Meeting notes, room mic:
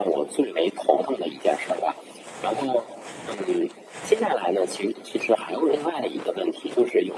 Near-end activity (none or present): none